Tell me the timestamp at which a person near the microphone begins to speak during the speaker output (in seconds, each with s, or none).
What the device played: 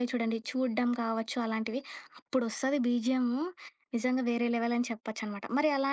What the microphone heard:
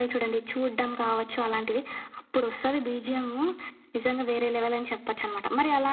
none